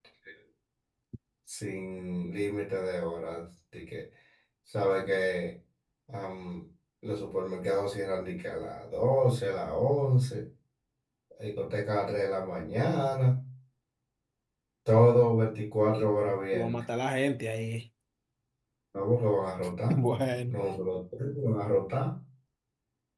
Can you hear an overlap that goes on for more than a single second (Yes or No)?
No